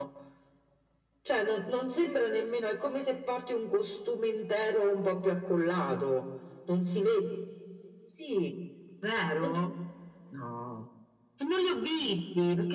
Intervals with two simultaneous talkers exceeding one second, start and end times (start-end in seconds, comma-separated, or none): none